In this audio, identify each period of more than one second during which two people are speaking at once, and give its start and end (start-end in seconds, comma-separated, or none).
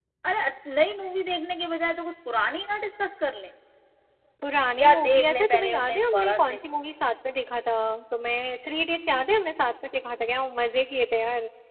4.8-6.6